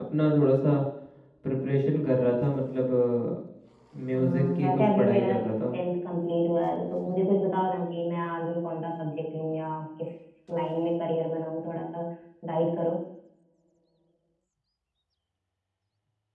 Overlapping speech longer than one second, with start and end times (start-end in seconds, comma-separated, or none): 4.1-5.3